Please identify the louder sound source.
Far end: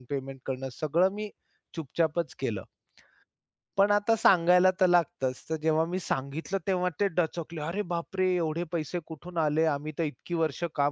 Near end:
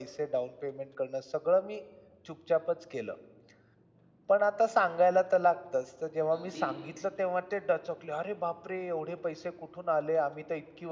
echo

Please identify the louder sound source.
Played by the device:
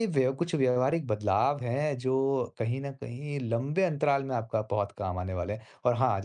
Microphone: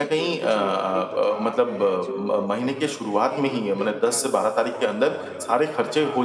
user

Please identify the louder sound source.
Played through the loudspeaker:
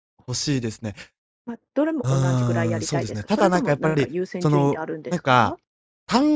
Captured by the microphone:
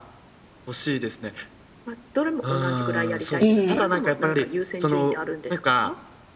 user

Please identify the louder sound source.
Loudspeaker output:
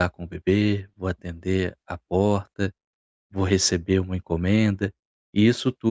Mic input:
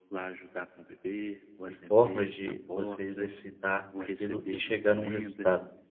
user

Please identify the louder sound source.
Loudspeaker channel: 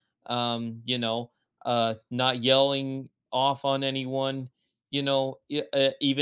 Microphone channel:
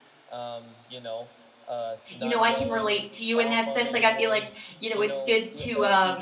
user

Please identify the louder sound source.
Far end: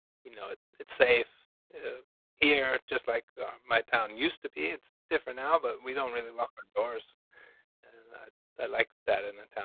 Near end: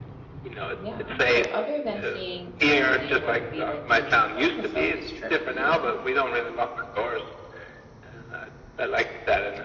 echo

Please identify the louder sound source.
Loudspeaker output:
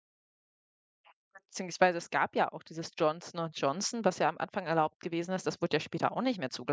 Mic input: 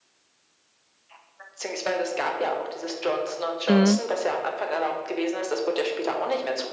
user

